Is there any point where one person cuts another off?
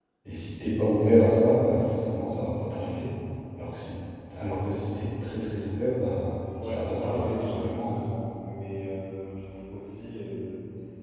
Yes, from 6.5 s

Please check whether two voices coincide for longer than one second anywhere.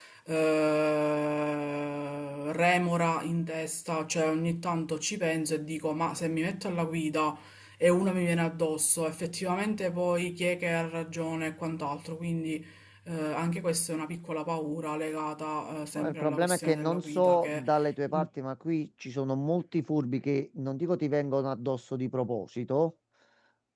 Yes, from 16.0 s

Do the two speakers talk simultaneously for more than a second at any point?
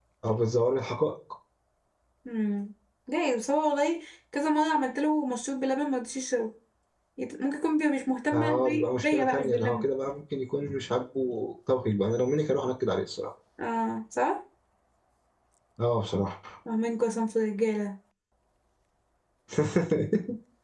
Yes, from 8.3 s

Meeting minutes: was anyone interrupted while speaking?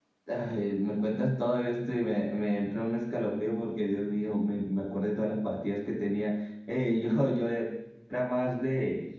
No

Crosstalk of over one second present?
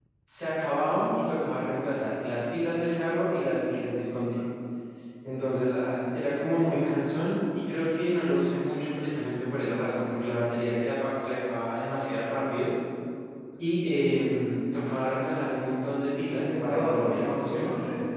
Yes, from 16.4 s

